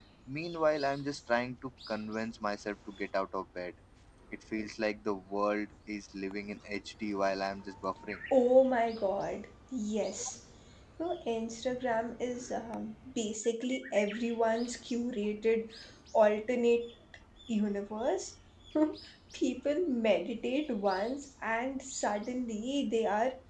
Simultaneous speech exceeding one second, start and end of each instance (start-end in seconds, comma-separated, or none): none